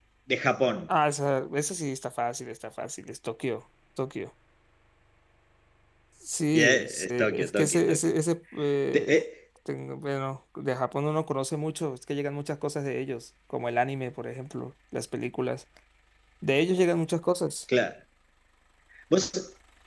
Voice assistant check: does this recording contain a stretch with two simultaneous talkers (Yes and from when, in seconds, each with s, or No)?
Yes, from 6.5 s